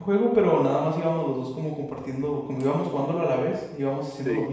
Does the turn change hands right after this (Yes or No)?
No